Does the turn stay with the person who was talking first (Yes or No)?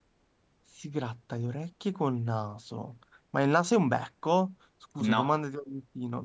Yes